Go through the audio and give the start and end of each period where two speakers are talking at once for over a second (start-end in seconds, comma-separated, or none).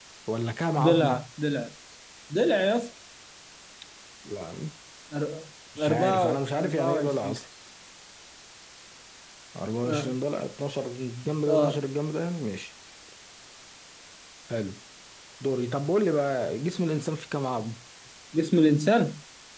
5.8-7.4